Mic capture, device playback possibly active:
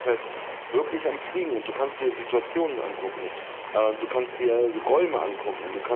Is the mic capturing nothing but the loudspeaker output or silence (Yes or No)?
Yes